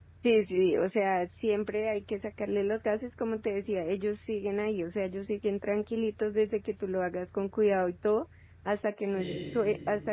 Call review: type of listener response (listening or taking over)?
listening